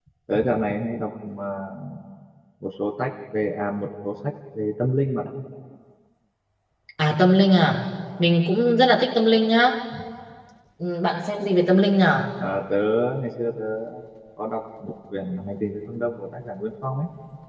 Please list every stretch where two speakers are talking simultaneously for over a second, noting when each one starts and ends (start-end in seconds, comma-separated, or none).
none